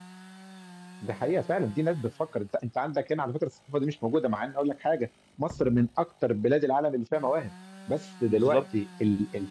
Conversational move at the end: listening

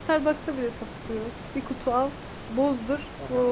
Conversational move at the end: taking over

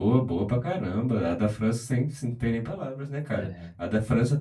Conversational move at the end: listening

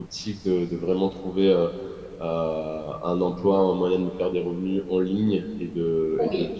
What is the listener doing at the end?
listening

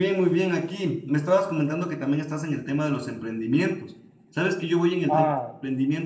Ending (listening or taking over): listening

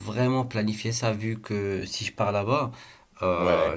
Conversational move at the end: listening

